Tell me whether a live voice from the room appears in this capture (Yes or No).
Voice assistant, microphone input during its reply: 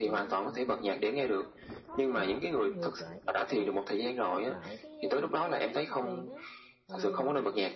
Yes